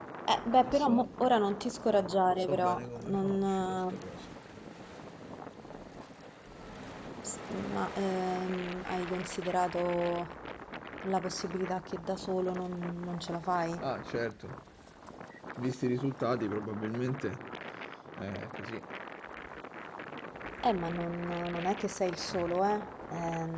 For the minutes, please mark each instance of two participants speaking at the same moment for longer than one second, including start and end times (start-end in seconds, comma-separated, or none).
2.2-4.0